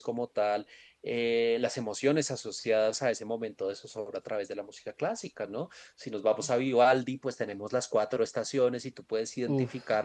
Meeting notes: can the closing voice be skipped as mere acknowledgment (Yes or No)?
Yes